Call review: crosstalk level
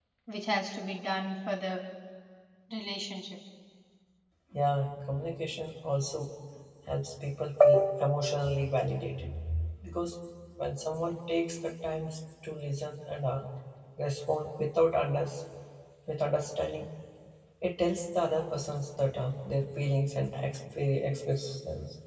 none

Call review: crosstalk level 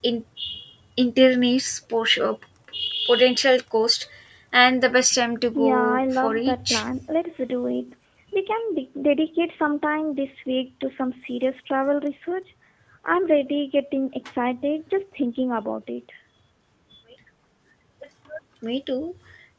present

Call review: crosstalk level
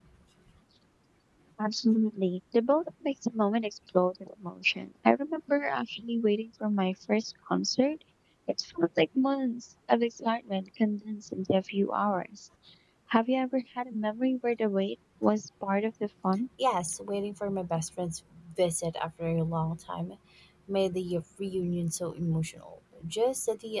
none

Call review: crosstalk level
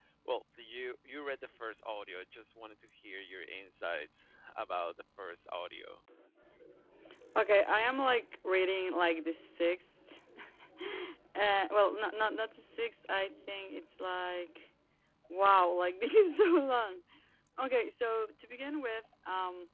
none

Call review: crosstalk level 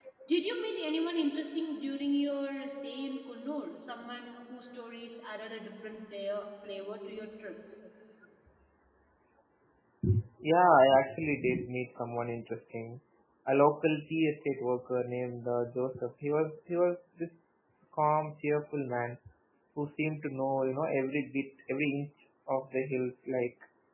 none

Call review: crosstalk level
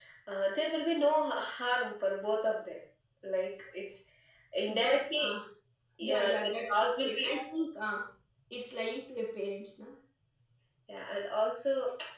present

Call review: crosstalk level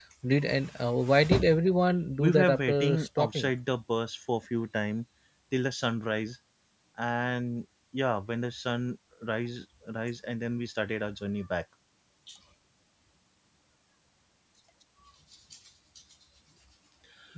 present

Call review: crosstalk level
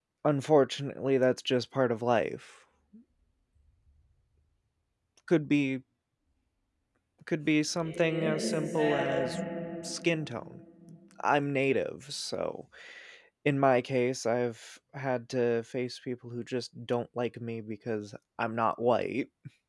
present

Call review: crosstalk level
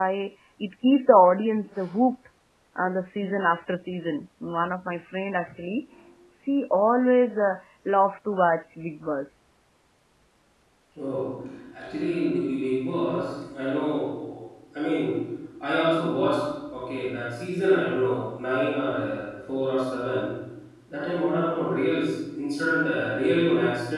none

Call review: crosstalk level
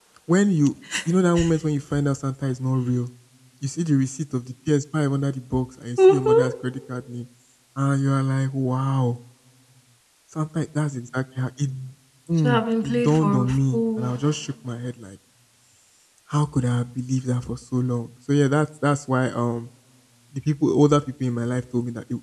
present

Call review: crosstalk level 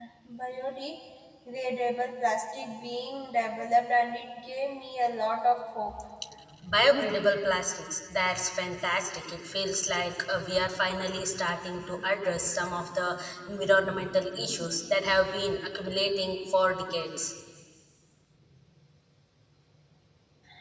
none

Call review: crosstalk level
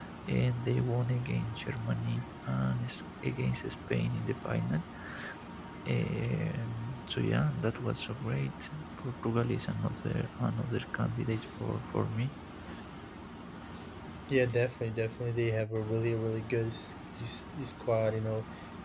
none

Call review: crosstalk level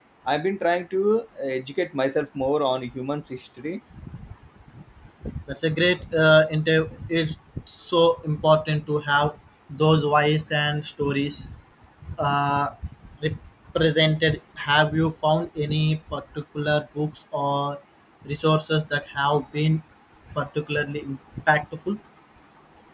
none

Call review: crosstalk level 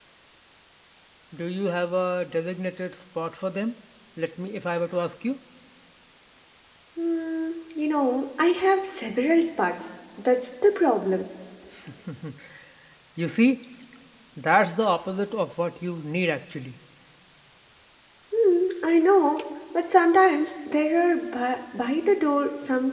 none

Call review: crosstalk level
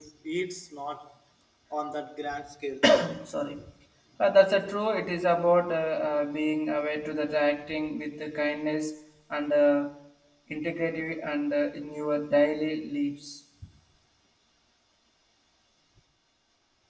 none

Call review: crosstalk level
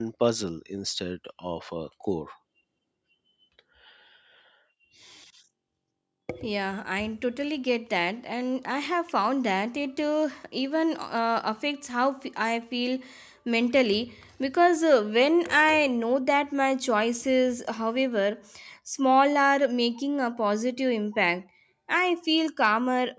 none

